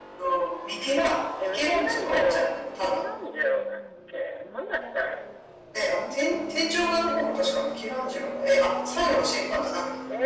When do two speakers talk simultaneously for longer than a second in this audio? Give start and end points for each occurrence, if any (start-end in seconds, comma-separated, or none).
1.4-3.0